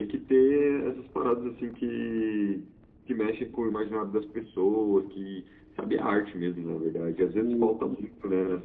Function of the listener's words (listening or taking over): listening